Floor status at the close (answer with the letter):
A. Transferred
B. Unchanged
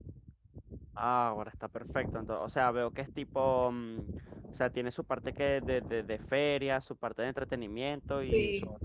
A